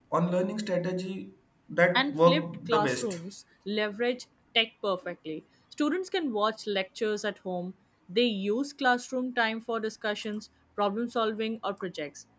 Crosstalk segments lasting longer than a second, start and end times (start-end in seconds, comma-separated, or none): 2.0-3.2